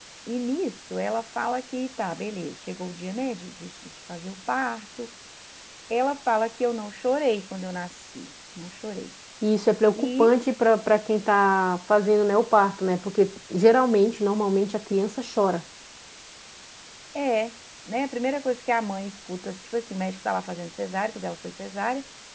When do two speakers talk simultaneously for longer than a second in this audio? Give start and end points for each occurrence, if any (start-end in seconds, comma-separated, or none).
none